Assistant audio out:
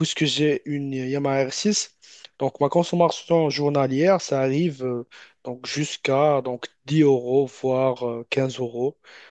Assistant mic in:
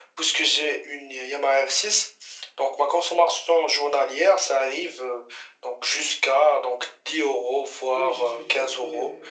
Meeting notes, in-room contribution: present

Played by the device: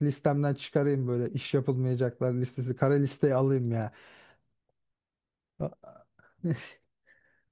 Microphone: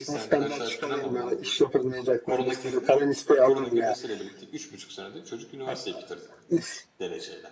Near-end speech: present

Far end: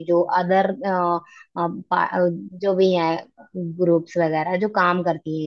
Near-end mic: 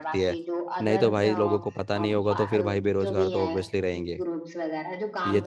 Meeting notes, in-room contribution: present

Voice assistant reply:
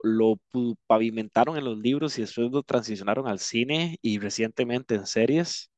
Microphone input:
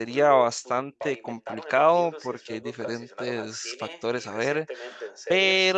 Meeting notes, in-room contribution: present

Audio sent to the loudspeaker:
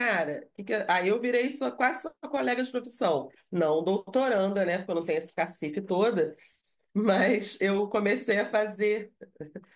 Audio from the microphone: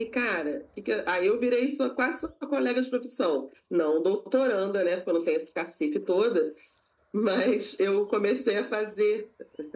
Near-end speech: none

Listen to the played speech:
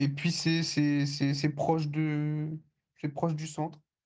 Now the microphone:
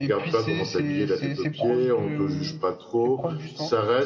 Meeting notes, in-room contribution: present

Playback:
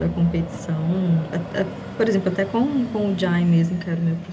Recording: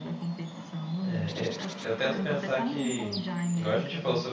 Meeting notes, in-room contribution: present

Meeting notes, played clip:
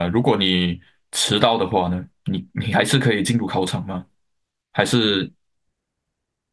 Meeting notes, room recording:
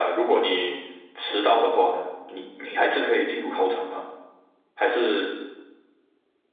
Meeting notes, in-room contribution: none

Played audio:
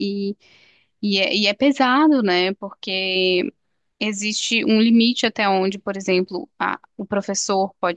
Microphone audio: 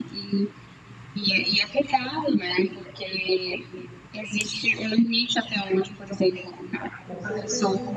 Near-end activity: present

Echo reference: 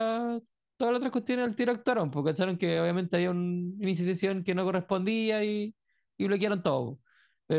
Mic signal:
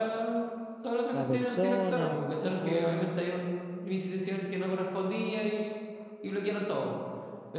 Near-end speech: present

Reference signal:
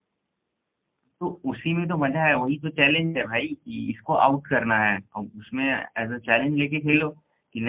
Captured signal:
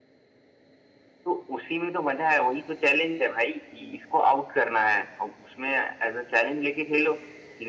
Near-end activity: none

